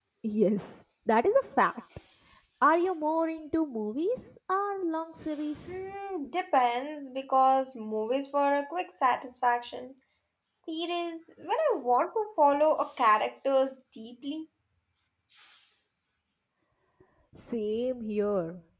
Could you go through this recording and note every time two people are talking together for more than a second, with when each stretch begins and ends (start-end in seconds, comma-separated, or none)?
none